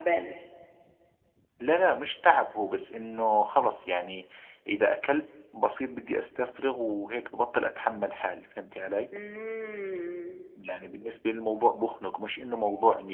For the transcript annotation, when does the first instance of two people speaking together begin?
none

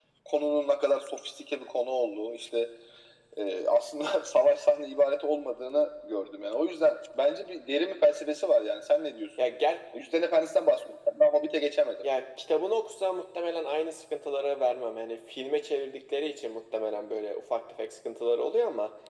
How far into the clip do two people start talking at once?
none

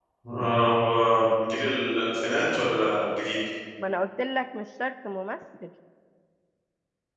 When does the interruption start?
none

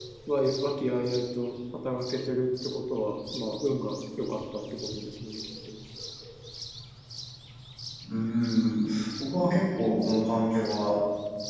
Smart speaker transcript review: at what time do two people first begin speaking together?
none

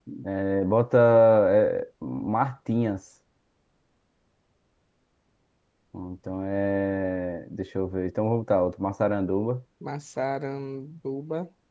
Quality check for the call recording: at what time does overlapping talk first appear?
none

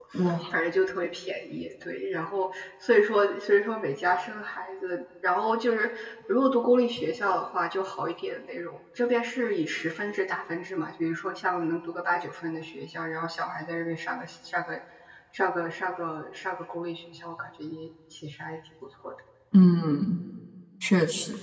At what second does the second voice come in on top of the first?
none

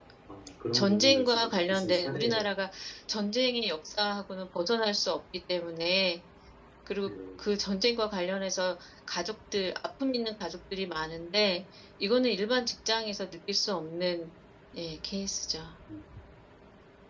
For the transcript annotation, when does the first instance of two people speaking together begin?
0.7 s

